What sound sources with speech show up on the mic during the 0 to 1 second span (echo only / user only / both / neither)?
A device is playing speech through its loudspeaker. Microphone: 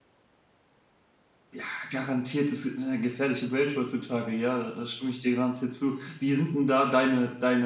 neither